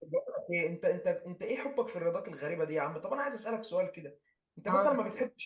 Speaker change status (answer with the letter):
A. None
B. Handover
A